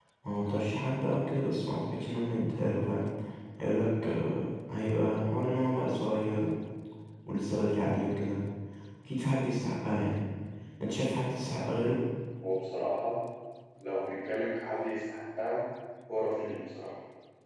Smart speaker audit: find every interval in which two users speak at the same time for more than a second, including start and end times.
none

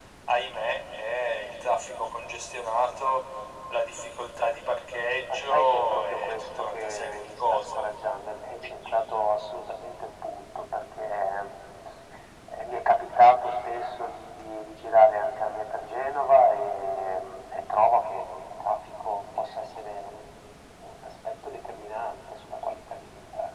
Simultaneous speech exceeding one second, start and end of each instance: 5.3-7.8

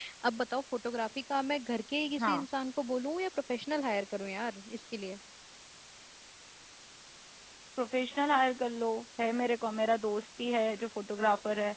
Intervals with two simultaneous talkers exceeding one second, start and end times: none

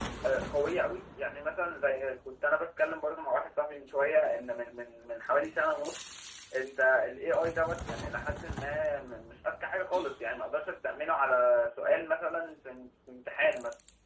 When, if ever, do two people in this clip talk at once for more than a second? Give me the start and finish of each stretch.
none

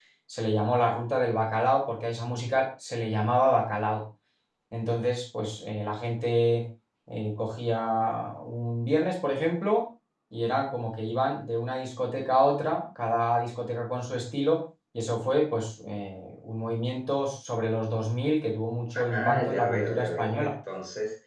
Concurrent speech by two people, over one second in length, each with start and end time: 19.0-20.5

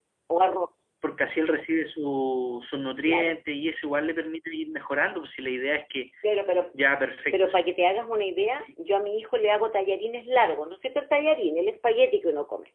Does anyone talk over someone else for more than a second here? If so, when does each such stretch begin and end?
none

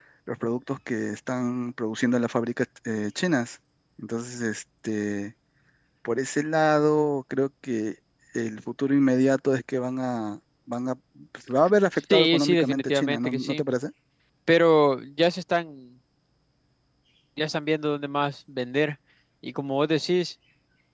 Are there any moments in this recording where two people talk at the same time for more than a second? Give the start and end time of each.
12.1-13.6

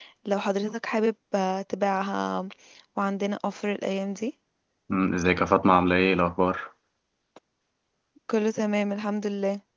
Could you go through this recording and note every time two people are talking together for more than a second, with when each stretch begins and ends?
none

